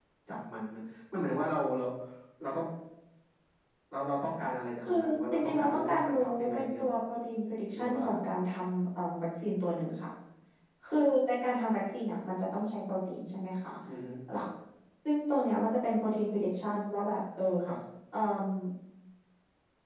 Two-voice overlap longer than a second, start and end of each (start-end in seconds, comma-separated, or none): 5.3-6.9